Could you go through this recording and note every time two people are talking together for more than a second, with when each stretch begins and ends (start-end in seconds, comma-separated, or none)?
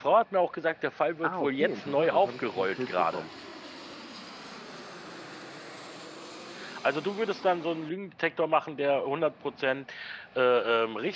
1.2-3.2